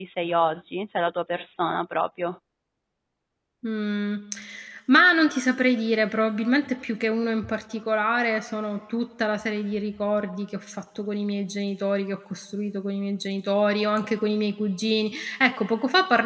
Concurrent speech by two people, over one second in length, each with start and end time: none

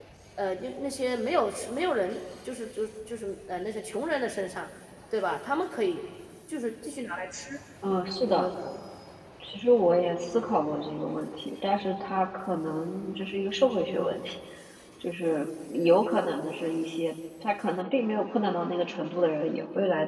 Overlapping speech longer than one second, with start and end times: none

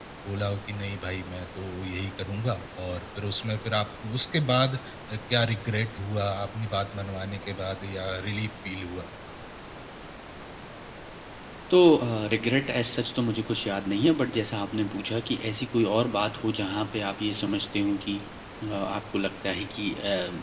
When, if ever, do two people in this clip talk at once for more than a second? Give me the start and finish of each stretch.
none

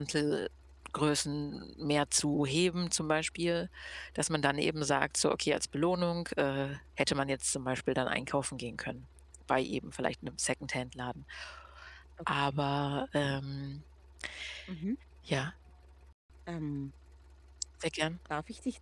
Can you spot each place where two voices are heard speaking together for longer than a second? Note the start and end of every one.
none

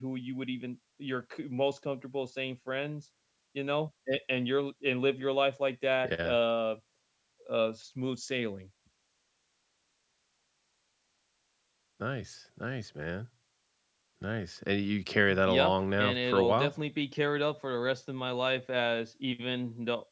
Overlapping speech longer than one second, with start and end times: 15.4-16.7

